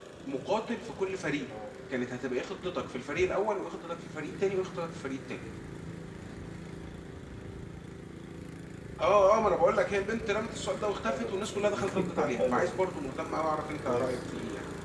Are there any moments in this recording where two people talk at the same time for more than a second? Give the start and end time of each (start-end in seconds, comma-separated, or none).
11.1-12.7